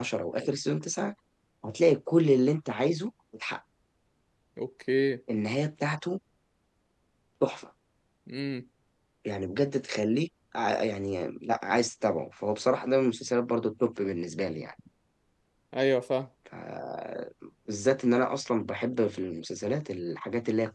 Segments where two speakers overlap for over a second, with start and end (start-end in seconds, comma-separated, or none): none